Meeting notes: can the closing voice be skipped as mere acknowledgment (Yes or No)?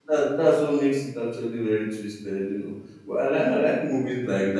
Yes